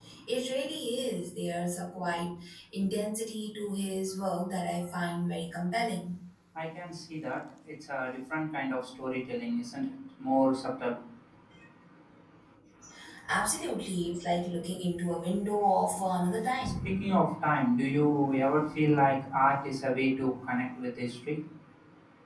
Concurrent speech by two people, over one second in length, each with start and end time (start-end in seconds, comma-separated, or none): none